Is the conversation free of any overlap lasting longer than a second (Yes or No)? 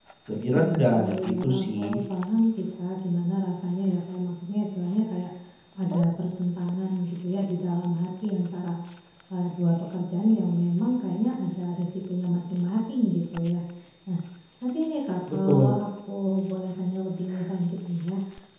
No